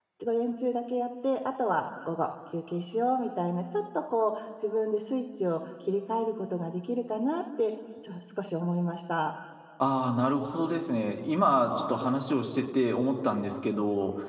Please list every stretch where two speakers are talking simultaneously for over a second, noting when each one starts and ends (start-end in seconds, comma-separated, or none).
none